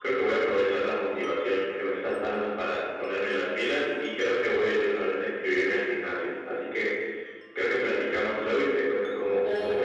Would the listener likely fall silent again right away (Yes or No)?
No